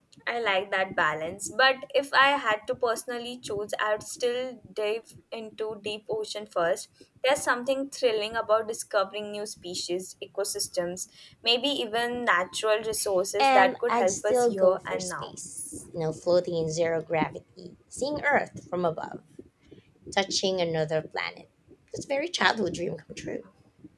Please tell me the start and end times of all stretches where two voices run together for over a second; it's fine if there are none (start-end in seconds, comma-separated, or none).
13.4-15.3